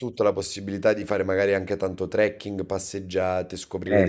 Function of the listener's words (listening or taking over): listening